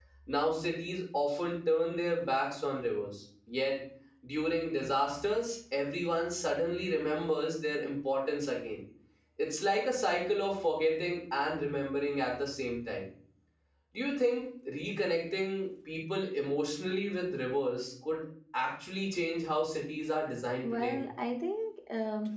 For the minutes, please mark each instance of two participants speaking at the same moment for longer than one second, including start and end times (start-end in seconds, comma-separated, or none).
none